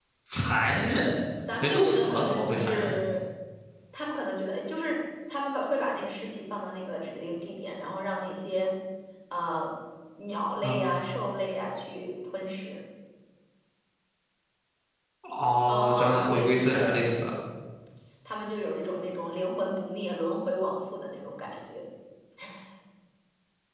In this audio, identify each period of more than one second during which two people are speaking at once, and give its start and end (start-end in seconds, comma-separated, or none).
1.6-2.9, 15.7-17.0